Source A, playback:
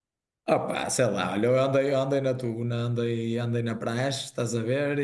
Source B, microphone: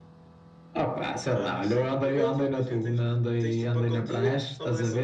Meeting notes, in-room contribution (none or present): present